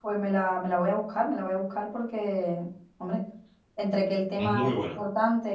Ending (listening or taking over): listening